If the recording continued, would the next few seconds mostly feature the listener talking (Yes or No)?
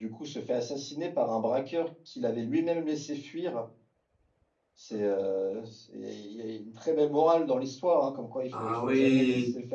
No